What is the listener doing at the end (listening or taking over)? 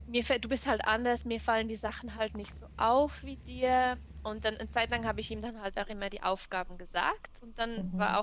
listening